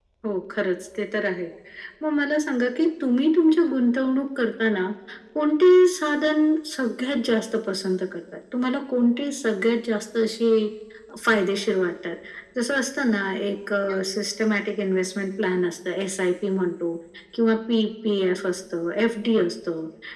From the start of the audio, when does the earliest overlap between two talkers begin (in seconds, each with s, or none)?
none